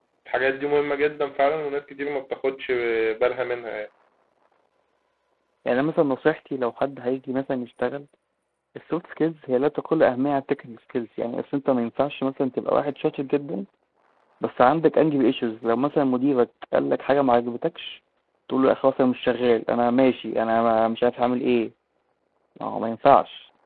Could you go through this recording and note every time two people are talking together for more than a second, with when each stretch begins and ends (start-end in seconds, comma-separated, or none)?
none